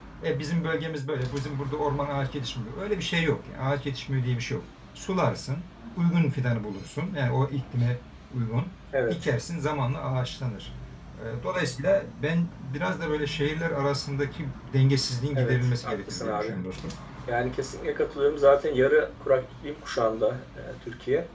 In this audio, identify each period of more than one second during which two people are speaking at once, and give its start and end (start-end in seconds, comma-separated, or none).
15.3-16.6